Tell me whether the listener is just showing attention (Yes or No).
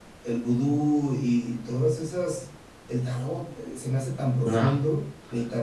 Yes